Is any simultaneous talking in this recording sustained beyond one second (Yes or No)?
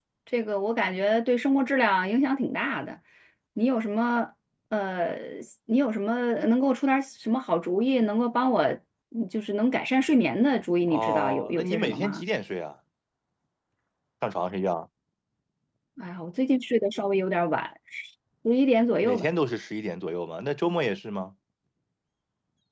Yes